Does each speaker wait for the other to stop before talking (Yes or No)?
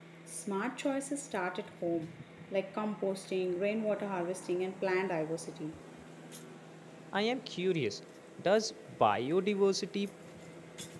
Yes